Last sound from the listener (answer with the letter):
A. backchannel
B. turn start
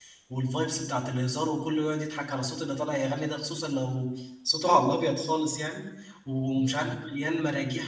A